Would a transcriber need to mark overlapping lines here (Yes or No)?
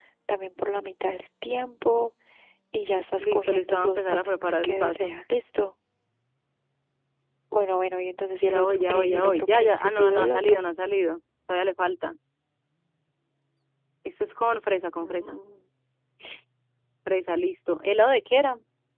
Yes